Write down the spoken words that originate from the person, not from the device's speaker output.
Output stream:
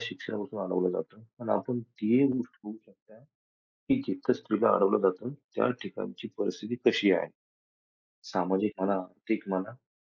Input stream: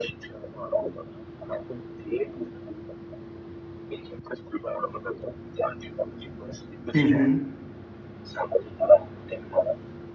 हं, हं.

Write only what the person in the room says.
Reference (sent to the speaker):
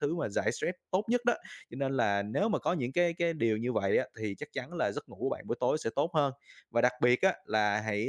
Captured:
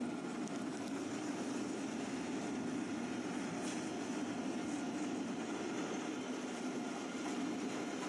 none

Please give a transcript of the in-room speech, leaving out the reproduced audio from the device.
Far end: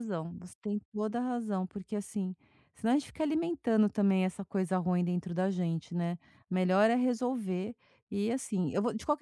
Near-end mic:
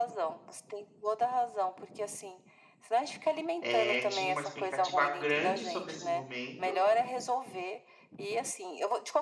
eh, tinha uma expectativa grande sobre esse momento,

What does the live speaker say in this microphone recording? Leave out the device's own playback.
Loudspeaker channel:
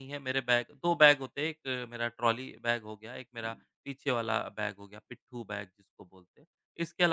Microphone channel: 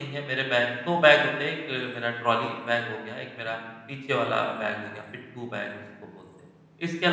none

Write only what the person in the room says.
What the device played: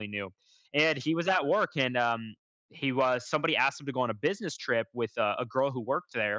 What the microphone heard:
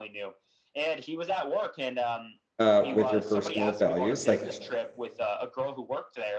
uh, with your personal values, like,

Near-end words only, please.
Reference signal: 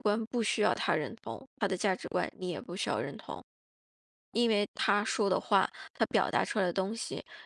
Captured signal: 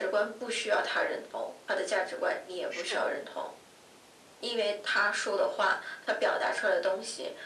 是。

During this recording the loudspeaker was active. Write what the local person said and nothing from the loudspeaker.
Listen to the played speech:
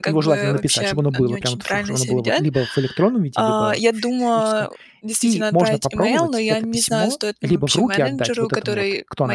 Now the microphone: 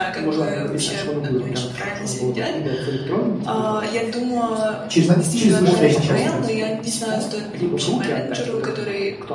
Через на через вышестоящее начальство, да.

